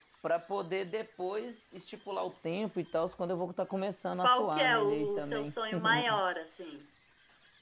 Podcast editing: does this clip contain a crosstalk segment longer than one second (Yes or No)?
Yes